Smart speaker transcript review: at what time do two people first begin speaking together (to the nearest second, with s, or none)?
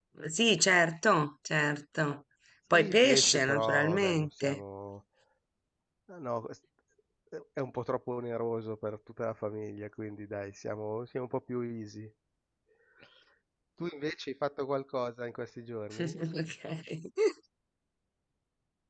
3 s